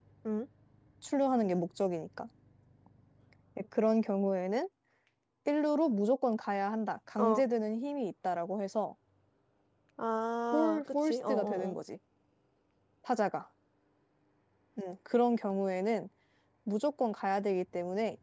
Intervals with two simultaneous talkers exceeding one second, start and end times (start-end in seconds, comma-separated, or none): 10.5-11.8